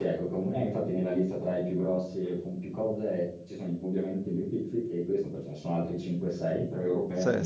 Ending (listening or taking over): listening